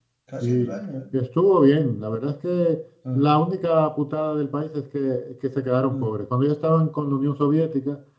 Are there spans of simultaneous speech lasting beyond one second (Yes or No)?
No